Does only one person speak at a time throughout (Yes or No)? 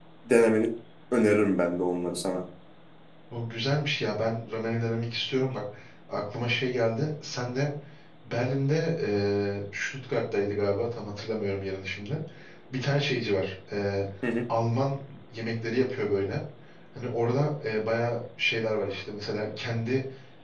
Yes